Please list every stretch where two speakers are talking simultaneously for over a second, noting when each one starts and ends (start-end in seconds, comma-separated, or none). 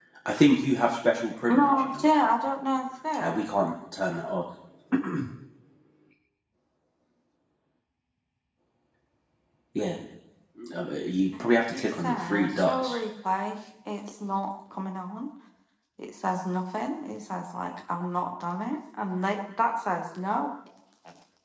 11.4-13.0